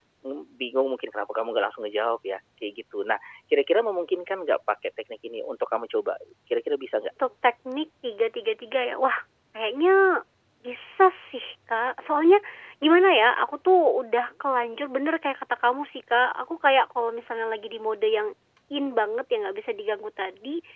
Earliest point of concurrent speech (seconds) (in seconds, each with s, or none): none